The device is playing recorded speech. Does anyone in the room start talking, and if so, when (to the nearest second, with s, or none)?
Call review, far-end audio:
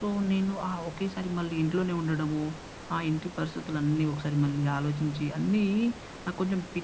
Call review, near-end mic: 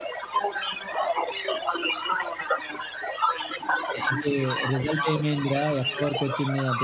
4 s